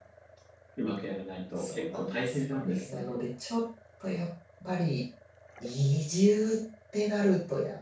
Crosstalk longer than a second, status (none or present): present